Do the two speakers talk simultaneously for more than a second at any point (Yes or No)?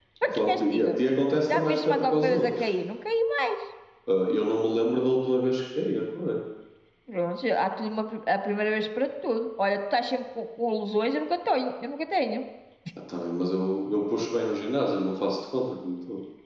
Yes